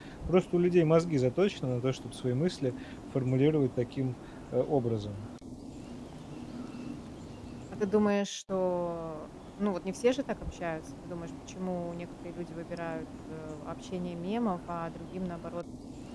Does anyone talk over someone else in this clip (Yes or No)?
No